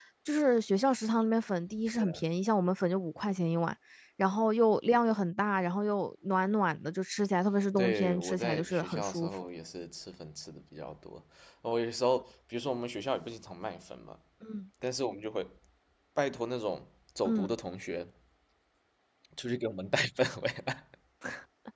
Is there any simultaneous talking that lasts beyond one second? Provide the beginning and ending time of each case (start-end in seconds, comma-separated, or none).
7.8-9.3